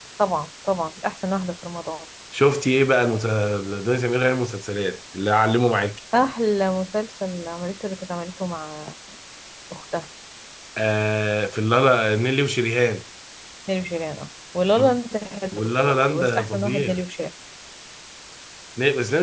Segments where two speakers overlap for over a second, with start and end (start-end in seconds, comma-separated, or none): 15.5-17.0